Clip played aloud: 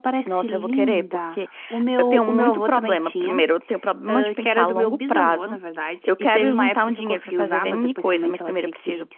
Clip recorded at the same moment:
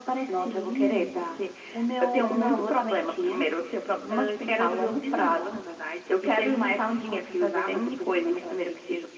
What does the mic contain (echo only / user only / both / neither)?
echo only